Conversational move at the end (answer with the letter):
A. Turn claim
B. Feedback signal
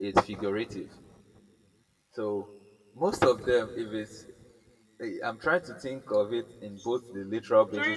A